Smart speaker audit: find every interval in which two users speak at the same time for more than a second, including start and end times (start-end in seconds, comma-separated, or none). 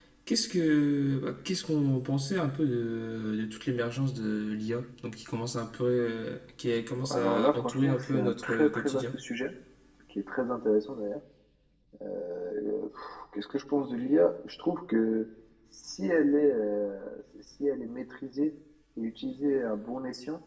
7.1-9.0